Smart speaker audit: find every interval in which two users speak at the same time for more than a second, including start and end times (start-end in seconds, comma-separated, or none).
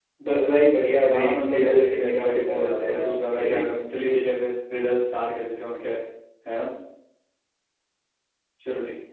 1.1-3.6